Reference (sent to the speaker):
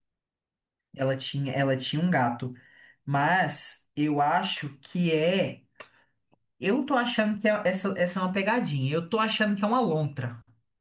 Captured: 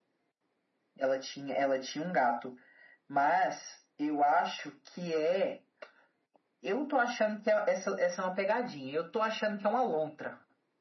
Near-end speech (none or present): none